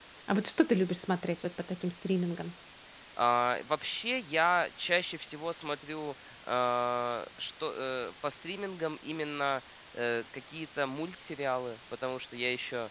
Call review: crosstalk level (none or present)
none